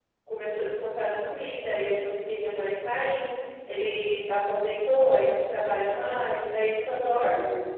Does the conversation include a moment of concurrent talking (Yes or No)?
No